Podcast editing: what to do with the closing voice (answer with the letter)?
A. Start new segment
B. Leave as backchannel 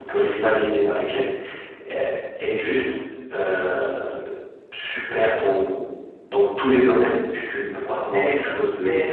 A